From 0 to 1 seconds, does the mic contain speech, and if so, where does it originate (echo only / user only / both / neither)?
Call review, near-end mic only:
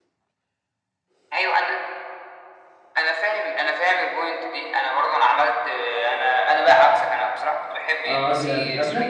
neither